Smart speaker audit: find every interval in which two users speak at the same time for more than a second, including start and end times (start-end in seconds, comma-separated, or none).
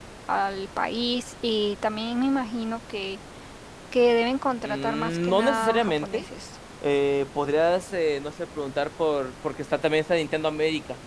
4.7-6.2